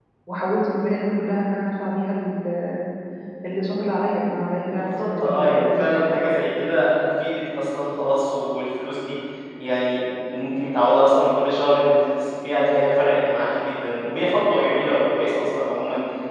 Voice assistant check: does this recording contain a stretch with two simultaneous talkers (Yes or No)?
Yes